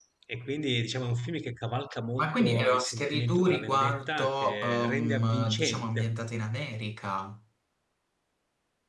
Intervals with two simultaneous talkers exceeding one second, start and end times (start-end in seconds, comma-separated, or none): 2.2-6.1